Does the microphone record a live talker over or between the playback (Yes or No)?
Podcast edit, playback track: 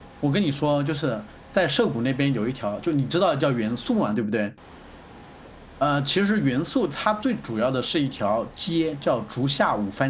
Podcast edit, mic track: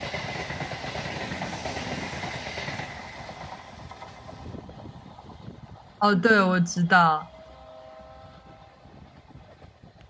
Yes